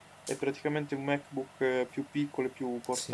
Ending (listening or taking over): taking over